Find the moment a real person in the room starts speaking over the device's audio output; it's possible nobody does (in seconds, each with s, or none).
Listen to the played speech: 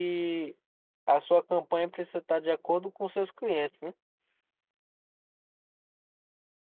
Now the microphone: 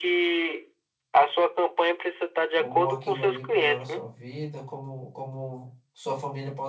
2.6 s